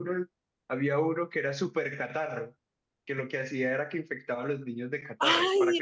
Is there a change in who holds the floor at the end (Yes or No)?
Yes